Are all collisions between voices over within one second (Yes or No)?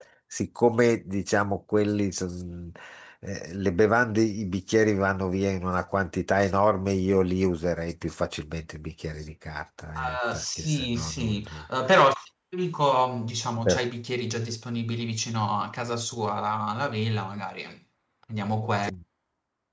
No